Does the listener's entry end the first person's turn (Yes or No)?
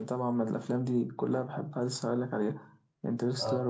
No